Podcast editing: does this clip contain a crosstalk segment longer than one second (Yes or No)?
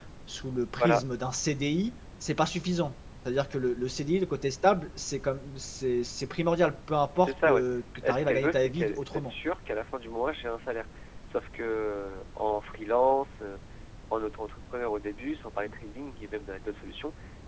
Yes